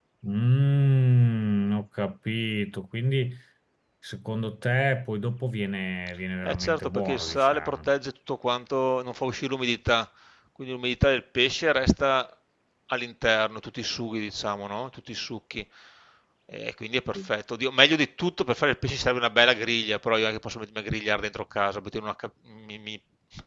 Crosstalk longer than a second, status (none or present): present